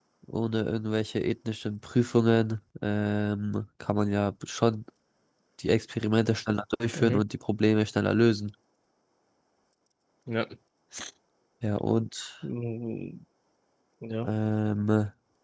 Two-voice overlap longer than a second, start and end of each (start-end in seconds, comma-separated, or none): none